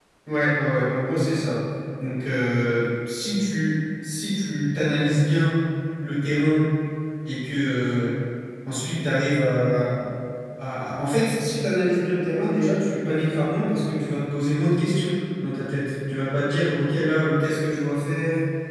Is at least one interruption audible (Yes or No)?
No